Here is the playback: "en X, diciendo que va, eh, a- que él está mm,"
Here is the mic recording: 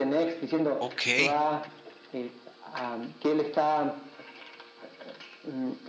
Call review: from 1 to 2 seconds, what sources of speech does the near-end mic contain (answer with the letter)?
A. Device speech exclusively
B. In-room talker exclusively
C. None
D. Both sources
D